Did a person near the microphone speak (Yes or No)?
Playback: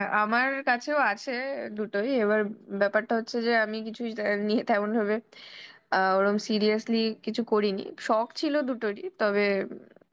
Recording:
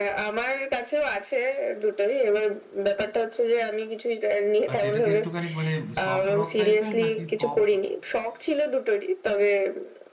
Yes